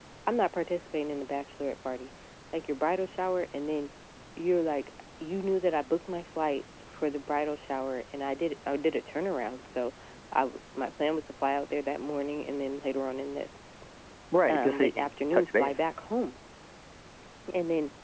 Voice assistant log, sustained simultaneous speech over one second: present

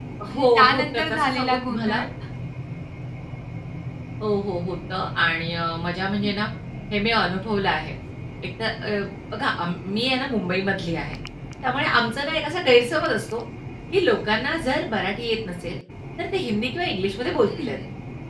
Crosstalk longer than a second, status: present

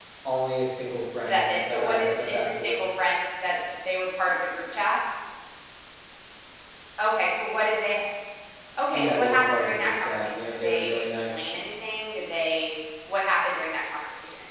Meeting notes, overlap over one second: present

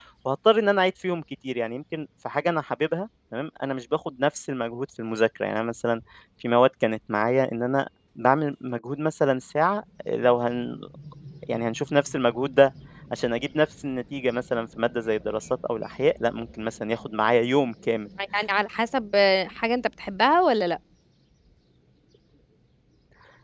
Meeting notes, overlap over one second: none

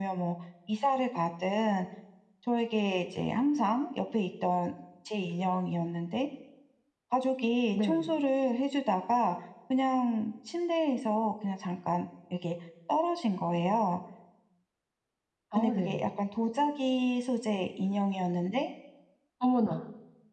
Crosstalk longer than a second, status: none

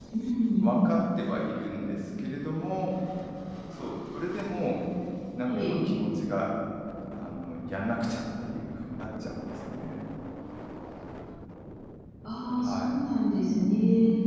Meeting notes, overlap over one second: none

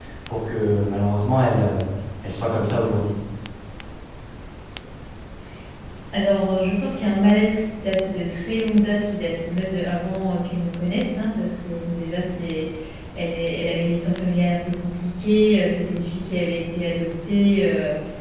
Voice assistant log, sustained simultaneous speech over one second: none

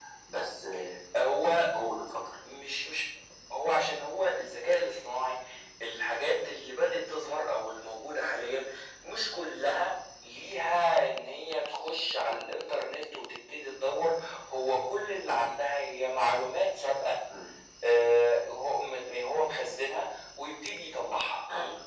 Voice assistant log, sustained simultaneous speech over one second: none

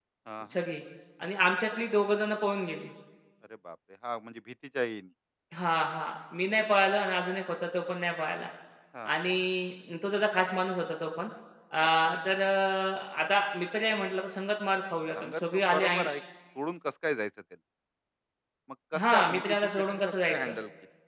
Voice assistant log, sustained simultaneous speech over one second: present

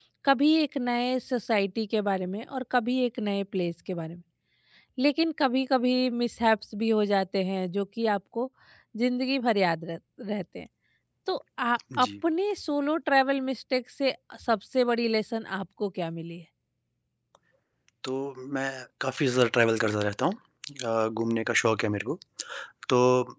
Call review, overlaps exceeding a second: none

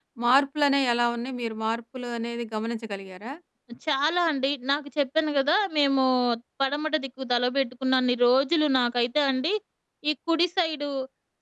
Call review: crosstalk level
none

